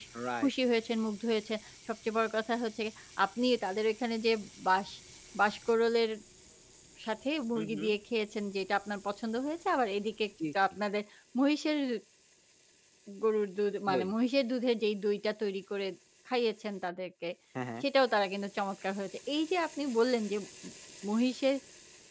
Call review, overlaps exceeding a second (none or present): none